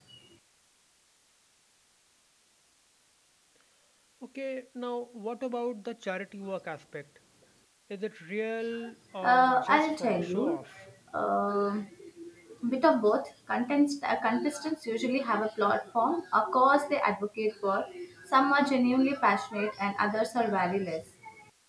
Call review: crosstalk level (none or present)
present